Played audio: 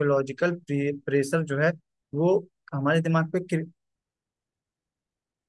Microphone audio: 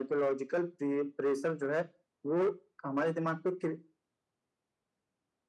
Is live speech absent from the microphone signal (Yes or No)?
Yes